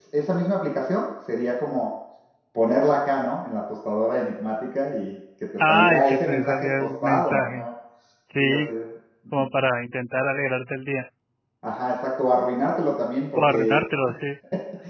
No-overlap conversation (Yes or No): No